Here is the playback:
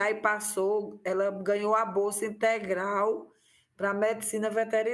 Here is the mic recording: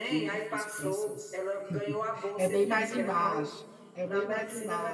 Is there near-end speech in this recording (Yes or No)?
Yes